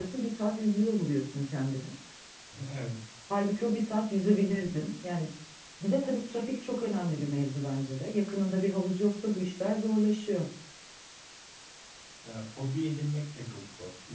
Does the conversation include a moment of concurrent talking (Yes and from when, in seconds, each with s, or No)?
No